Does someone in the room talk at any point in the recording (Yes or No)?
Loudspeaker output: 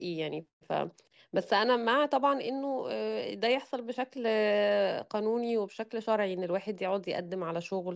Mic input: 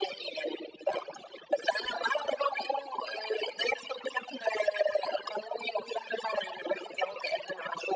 No